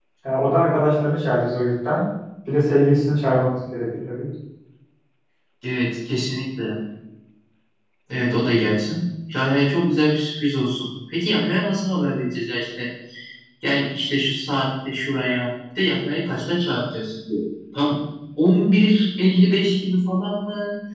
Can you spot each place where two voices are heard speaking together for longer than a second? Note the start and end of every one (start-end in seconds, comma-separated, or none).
none